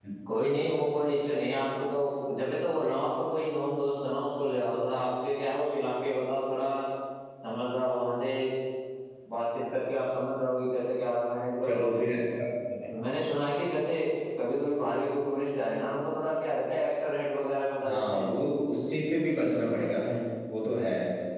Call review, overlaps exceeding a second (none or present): none